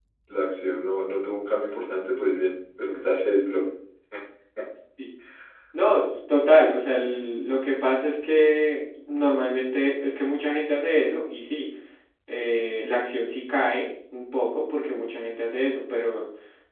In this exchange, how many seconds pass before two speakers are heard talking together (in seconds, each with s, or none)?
none